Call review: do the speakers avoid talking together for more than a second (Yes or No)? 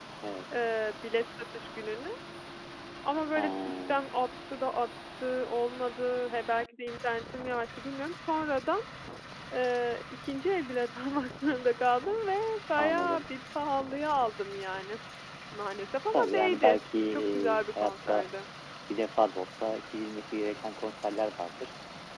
No